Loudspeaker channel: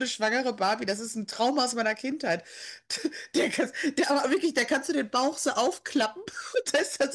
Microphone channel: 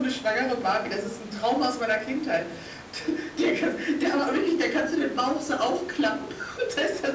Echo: present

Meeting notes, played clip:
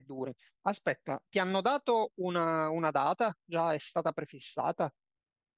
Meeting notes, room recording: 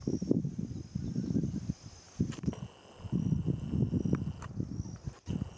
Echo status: none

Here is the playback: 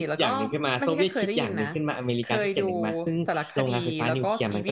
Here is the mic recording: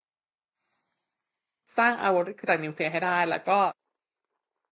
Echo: none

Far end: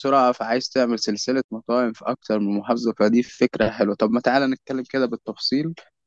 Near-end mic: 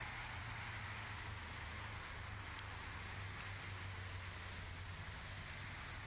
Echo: none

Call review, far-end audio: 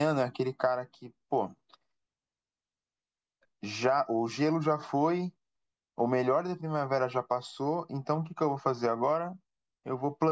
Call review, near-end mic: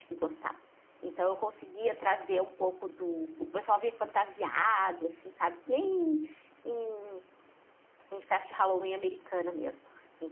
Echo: none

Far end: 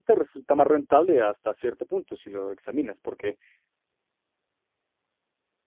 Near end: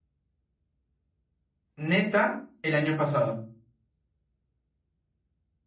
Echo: none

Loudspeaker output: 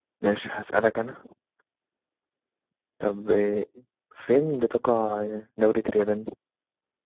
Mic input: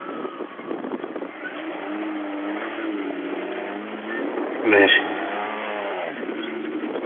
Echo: none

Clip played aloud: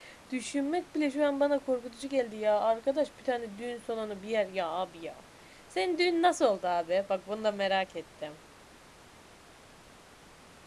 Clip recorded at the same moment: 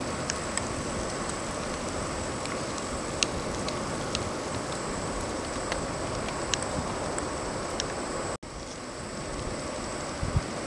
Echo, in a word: none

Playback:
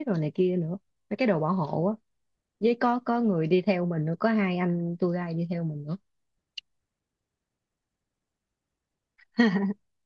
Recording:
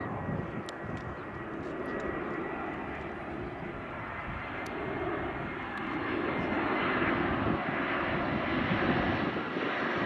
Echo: none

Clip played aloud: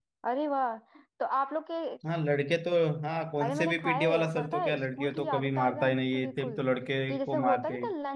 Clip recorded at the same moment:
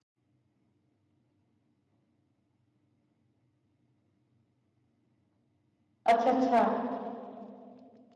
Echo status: none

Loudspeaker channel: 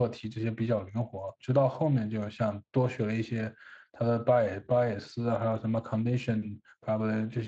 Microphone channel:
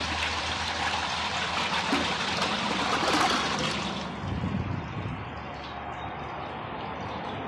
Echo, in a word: none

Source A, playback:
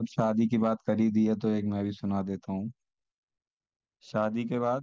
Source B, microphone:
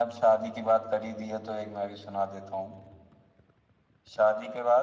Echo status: present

